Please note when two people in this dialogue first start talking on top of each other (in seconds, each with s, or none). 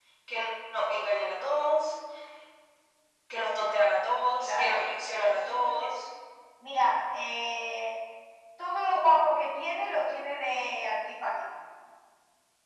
4.1 s